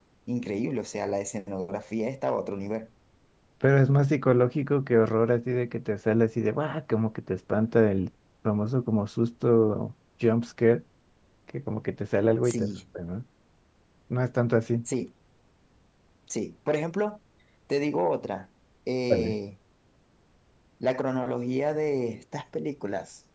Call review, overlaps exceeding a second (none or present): none